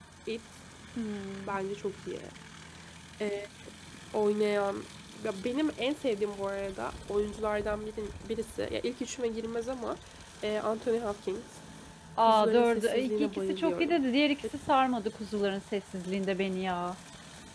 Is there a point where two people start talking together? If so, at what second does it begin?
12 s

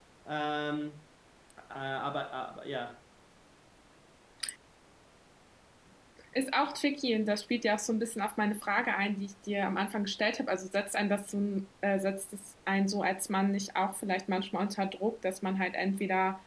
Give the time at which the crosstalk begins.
none

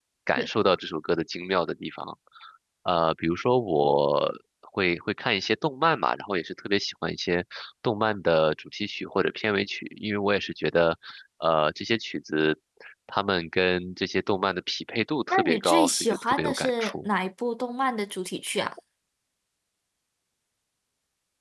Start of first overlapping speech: 15 s

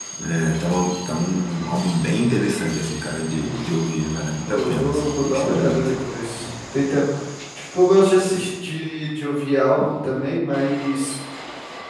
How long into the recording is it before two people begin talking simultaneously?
4 s

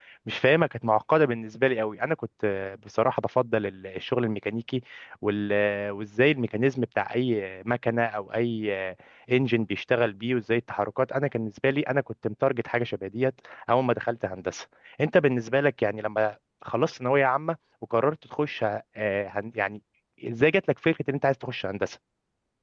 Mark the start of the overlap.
none

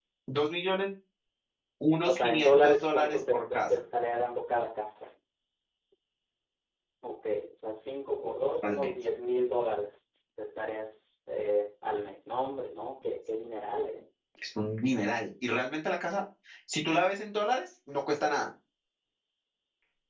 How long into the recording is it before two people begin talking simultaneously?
2 s

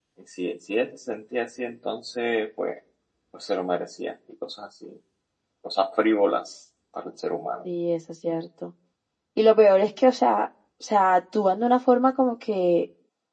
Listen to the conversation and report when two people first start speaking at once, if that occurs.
none

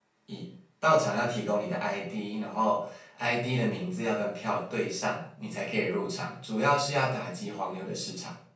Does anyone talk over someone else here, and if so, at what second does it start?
none

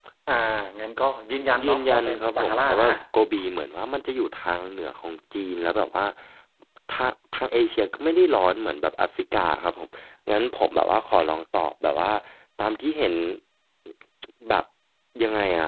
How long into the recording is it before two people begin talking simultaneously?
2 s

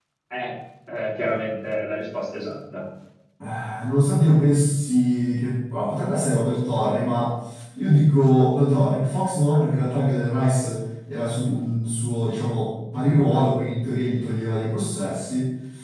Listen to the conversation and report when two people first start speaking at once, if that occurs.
none

